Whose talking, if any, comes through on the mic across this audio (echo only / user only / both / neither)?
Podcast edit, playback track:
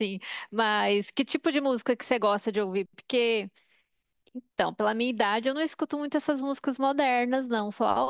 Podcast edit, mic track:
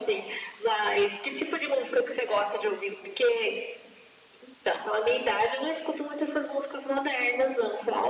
echo only